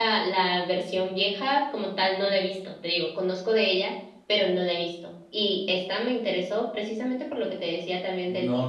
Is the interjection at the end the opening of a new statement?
Yes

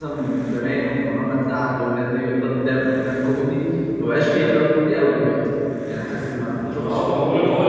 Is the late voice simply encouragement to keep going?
No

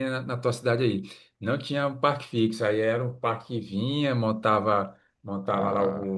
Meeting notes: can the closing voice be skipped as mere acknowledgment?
Yes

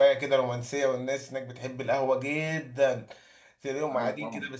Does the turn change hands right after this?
No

